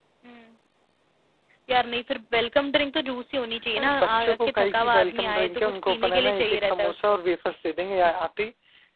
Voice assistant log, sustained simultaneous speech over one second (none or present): present